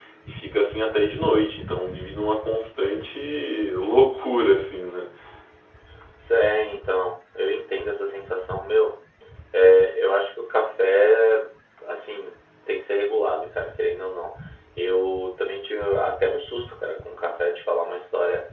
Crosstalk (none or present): none